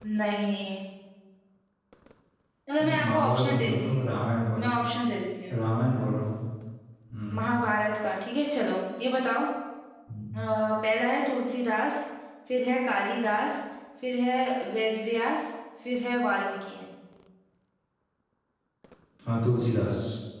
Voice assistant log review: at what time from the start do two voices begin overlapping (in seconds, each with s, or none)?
2.8 s